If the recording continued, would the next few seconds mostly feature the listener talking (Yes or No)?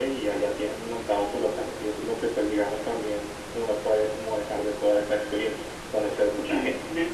Yes